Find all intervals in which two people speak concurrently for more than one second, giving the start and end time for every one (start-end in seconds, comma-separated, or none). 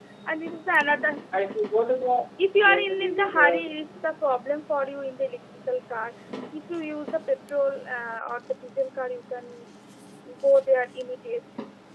2.6-4.1